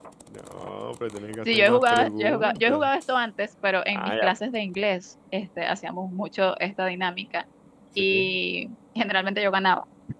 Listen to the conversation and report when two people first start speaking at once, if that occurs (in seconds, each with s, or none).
1.4 s